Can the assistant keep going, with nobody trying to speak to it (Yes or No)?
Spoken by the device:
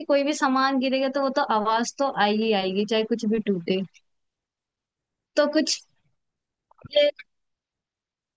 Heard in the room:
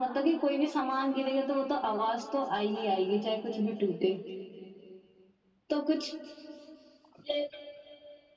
Yes